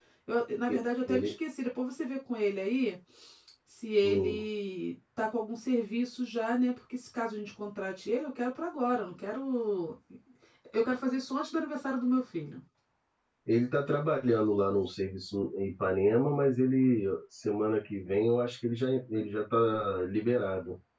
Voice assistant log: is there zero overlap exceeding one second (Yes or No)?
Yes